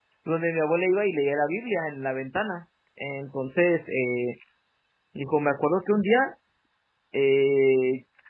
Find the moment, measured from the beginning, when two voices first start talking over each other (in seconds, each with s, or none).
none